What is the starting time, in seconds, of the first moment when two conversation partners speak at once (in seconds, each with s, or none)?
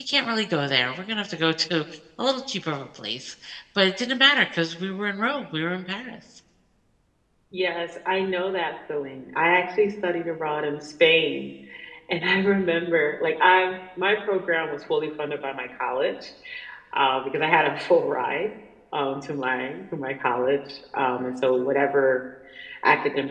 none